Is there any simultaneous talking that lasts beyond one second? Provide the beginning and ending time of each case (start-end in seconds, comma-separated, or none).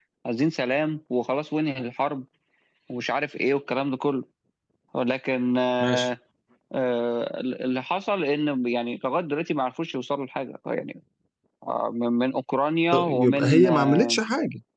12.9-14.2